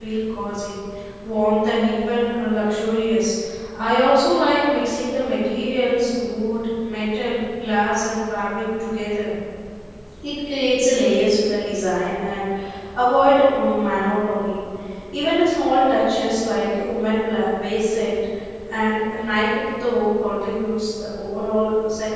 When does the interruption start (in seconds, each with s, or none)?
none